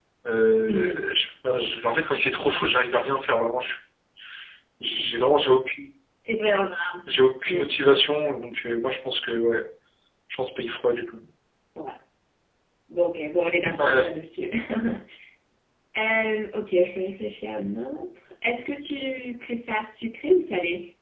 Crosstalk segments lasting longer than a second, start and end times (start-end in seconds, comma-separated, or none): none